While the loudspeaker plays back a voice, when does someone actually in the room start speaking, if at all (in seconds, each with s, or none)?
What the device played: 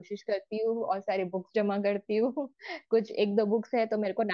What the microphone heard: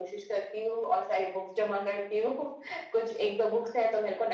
none